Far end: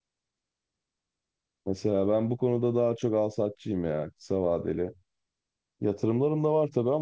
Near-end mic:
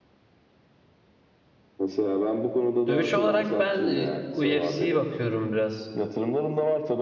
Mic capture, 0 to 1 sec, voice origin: neither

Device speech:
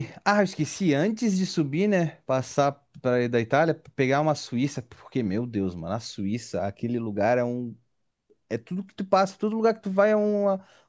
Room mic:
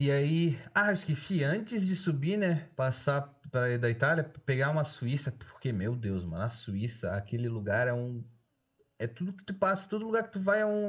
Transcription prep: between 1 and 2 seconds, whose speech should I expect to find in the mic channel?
echo only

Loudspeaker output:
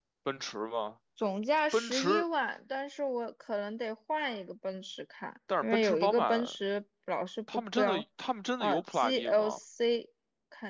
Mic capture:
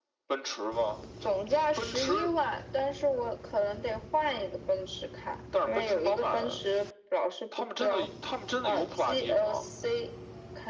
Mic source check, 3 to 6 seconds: echo only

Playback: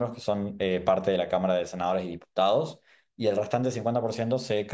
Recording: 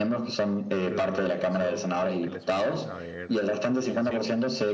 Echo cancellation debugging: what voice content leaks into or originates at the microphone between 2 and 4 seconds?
both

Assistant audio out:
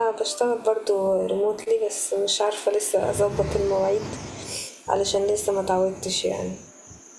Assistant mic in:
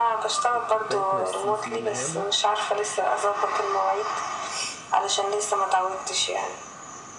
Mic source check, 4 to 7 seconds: echo only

